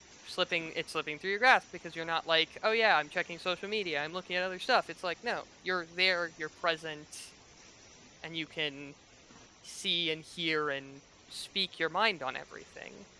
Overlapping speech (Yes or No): No